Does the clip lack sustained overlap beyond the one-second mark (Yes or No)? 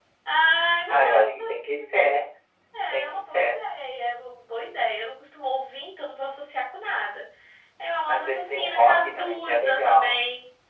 No